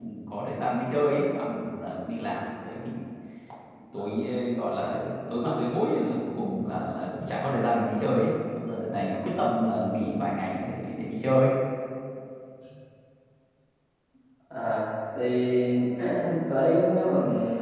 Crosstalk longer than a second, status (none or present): none